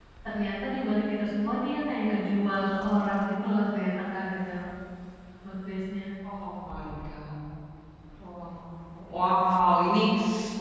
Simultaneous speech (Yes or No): No